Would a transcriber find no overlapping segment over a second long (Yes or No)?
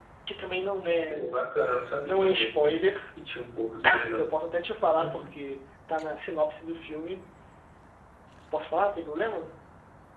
Yes